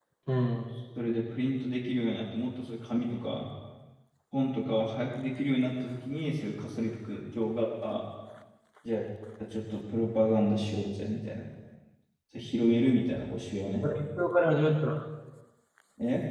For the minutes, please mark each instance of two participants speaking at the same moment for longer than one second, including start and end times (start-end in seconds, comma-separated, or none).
none